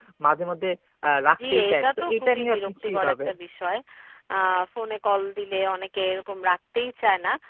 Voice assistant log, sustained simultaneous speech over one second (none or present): present